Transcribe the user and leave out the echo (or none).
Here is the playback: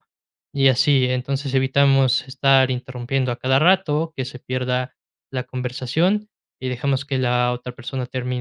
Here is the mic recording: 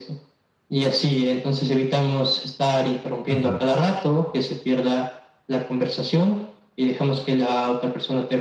Ujú.